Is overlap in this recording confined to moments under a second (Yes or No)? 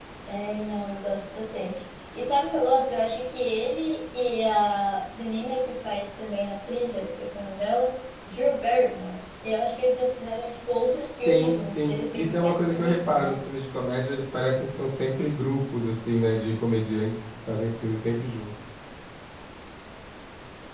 No